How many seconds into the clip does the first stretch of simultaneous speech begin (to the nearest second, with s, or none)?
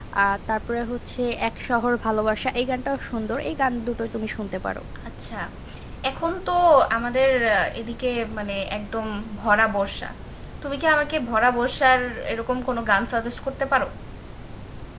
none